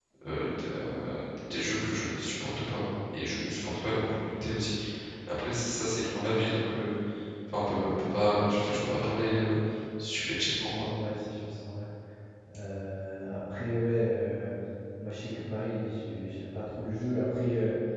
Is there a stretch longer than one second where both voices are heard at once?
No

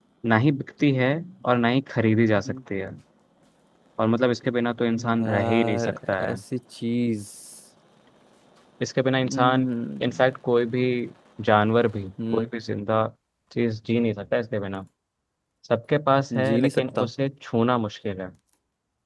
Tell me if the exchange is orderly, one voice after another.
No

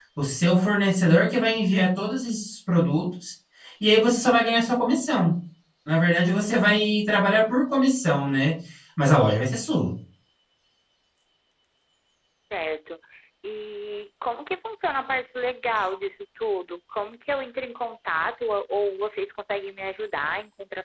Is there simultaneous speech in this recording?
No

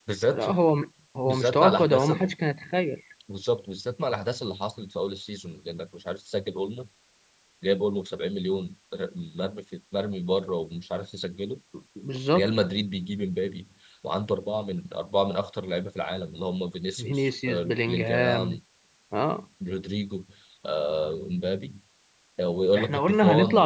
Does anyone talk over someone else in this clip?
Yes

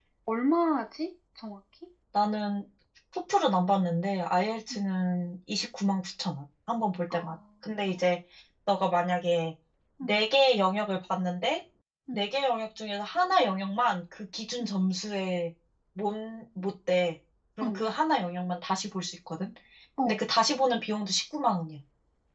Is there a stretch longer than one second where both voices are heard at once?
No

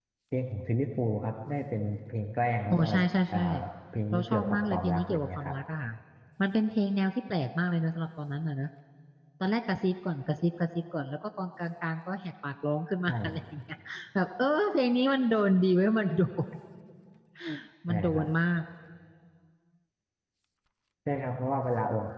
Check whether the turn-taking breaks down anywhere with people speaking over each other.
Yes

